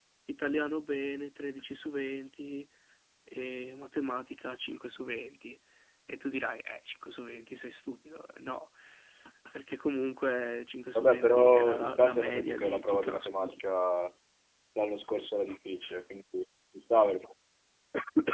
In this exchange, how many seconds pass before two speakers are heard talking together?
11.0 s

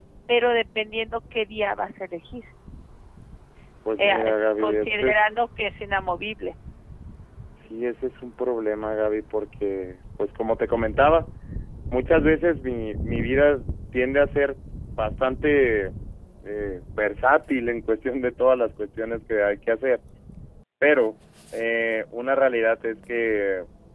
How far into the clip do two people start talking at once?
4.0 s

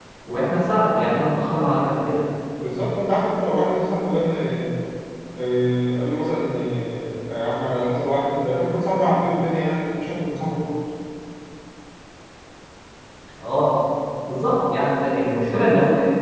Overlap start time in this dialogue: none

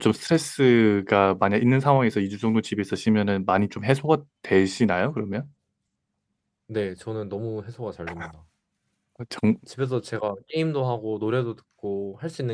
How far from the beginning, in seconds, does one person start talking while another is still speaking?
none

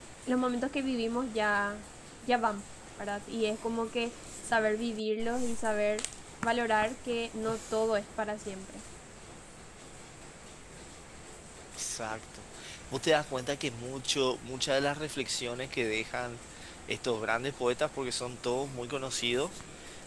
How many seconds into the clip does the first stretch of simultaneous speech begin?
none

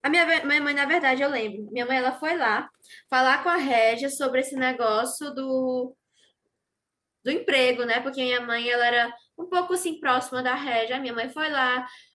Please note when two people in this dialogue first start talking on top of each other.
none

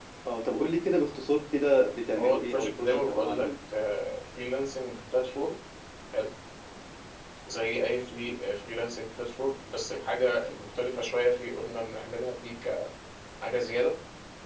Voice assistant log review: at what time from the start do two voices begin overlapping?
2.1 s

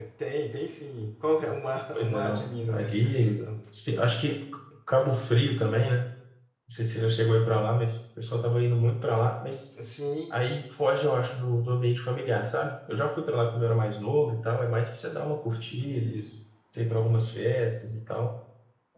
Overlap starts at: 1.9 s

